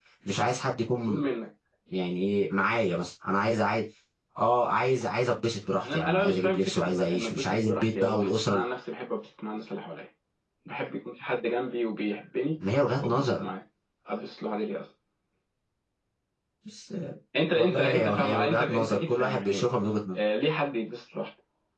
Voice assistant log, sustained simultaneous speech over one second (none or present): present